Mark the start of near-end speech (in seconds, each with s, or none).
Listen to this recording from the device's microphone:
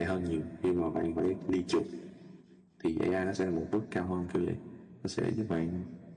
none